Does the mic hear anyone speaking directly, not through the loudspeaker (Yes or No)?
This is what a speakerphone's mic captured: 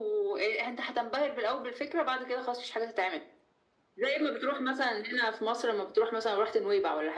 No